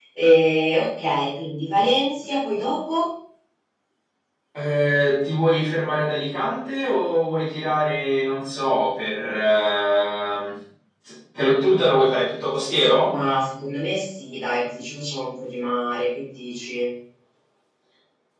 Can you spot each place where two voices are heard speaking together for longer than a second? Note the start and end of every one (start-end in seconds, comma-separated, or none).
none